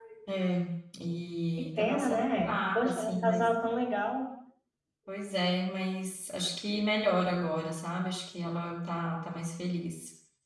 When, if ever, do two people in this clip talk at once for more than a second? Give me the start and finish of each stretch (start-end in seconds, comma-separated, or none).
1.8-3.5